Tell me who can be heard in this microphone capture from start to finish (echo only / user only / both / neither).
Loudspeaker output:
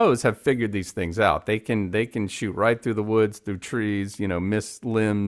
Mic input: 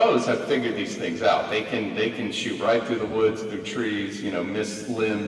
echo only